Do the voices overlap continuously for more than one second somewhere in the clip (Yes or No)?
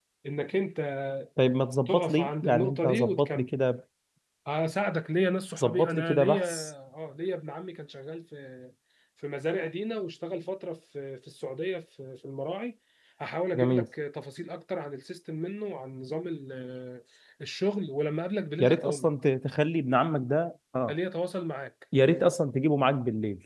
Yes